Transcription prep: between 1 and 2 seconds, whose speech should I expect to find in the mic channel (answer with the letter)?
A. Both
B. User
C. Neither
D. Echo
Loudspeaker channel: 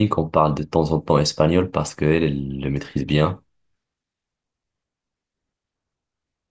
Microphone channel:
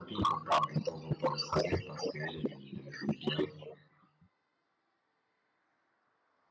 D